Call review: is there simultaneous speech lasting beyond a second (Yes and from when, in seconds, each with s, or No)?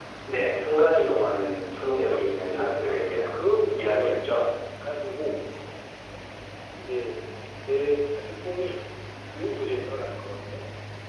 Yes, from 2.0 s